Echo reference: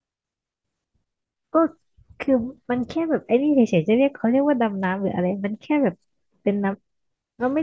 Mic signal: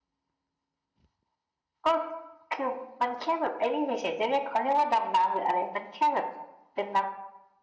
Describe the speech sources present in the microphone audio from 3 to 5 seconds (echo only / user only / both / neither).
echo only